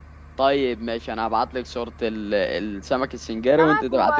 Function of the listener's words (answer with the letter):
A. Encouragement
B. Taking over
B